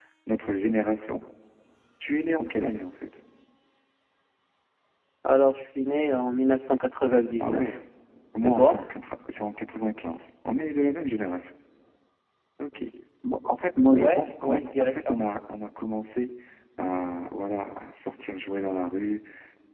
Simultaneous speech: Yes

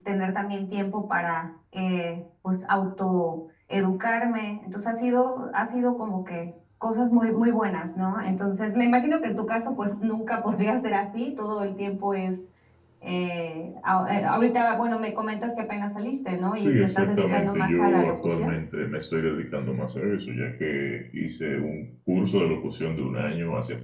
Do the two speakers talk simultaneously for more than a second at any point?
Yes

